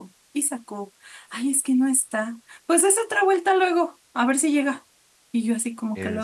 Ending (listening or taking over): listening